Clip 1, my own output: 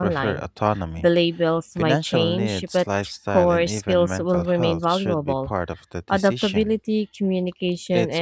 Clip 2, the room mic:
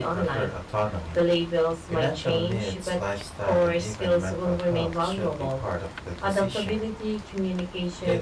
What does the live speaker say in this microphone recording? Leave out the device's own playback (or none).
none